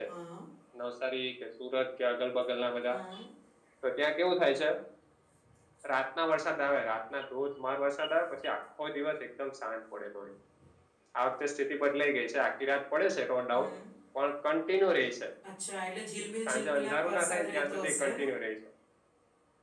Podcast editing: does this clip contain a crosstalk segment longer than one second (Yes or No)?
Yes